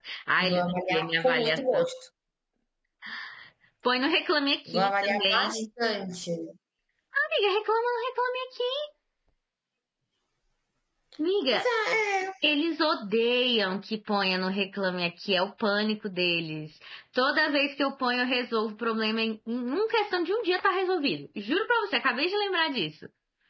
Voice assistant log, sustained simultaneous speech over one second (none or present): present